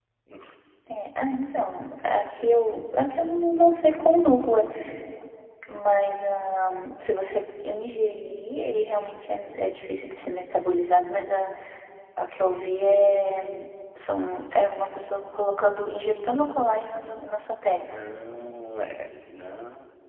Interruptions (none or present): none